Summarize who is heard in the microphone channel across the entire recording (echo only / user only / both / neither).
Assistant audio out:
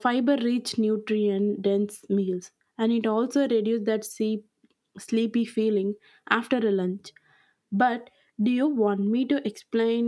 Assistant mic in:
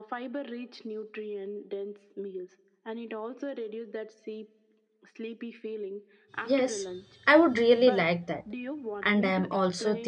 both